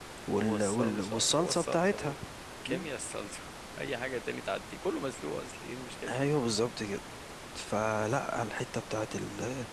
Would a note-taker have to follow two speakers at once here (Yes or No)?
Yes